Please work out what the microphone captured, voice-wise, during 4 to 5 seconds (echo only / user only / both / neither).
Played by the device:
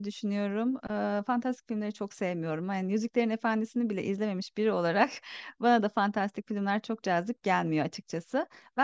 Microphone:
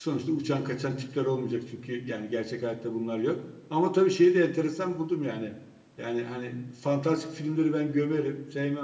user only